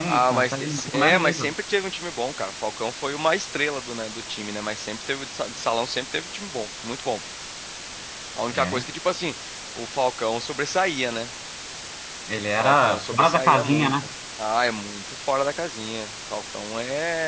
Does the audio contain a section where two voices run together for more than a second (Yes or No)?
Yes